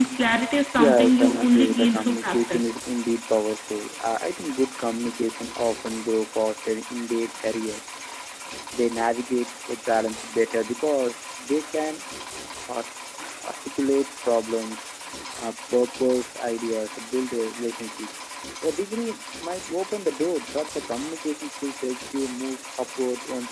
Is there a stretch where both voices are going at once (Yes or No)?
Yes